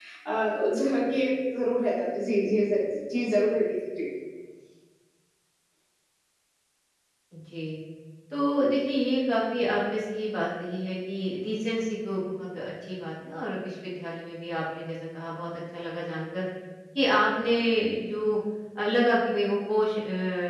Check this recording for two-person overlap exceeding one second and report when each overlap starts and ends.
none

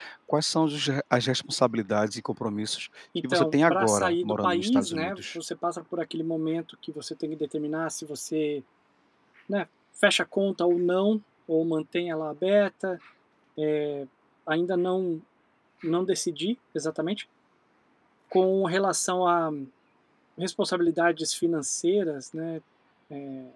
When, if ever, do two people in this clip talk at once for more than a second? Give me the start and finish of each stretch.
3.3-5.4

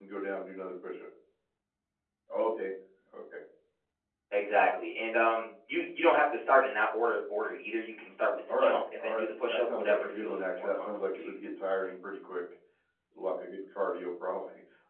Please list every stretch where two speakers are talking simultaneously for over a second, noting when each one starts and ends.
8.6-11.3

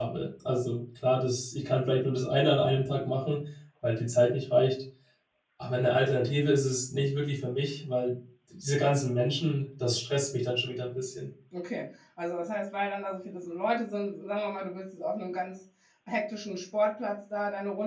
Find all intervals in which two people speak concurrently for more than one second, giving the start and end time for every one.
none

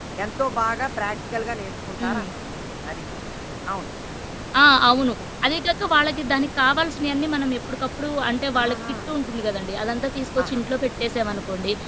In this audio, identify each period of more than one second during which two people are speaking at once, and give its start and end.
none

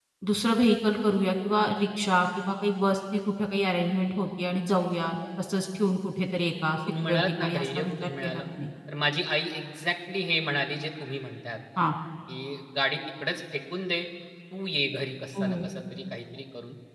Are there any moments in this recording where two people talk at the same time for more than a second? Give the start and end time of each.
7.1-8.4

